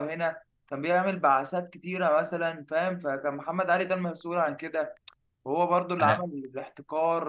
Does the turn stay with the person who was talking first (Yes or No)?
Yes